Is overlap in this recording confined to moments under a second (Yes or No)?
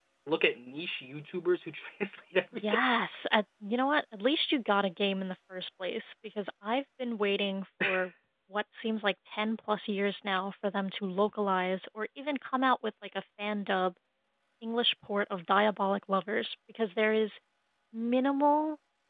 Yes